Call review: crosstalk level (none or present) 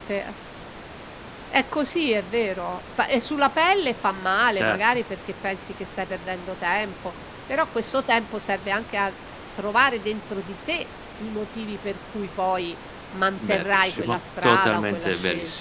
present